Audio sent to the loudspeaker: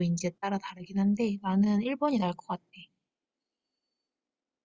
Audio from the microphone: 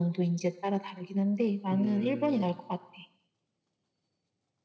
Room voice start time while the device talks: 1.7 s

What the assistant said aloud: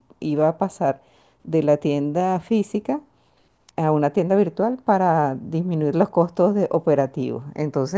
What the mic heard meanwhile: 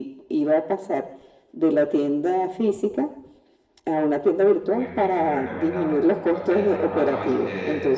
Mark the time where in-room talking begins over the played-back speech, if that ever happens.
4.7 s

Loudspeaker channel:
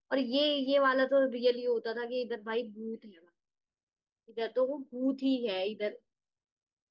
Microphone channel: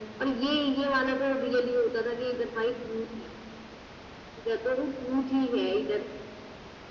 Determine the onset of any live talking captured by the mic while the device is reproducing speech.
none

